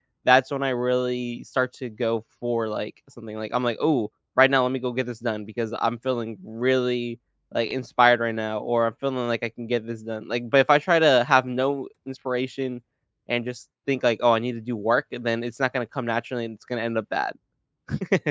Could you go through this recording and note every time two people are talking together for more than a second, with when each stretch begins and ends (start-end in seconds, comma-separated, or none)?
none